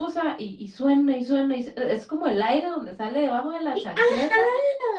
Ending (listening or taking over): taking over